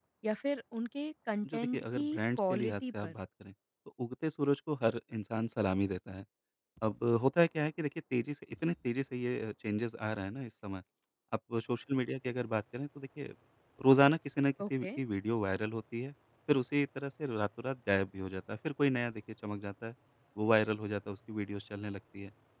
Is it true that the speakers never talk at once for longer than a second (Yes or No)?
No